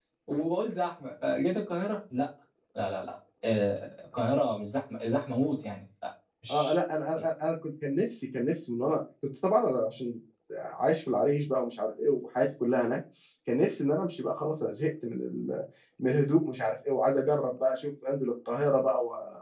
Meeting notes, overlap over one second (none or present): none